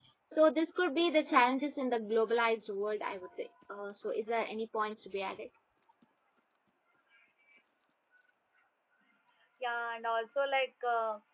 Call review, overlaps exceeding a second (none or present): none